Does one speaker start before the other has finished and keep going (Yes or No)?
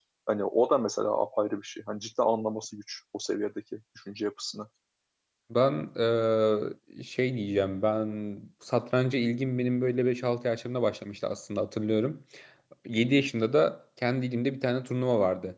No